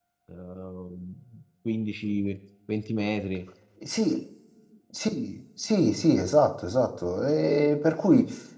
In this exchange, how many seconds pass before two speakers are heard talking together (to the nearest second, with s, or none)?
none